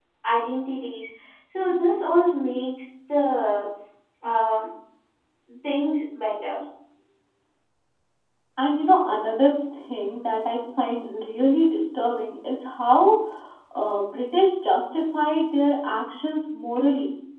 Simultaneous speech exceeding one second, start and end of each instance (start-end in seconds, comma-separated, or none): none